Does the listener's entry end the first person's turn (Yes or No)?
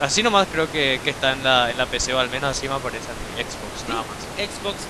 Yes